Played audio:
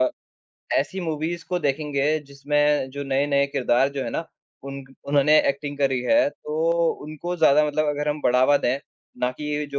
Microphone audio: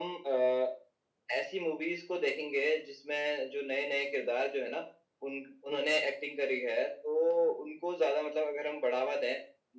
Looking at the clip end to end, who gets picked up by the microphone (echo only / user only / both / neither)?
echo only